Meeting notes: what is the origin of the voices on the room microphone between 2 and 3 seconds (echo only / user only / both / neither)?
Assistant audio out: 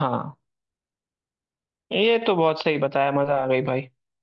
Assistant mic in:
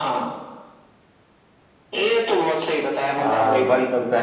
echo only